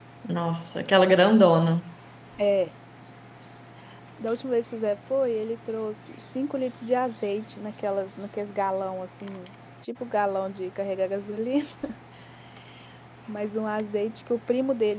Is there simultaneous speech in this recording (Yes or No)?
No